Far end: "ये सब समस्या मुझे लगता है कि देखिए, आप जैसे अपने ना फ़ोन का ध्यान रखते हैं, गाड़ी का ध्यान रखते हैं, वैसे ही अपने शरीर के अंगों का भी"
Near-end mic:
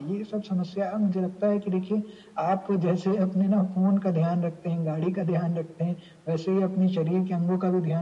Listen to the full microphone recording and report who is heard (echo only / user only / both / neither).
echo only